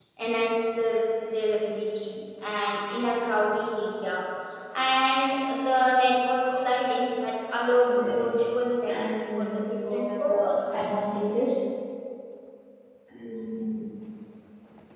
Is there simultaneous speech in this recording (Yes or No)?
Yes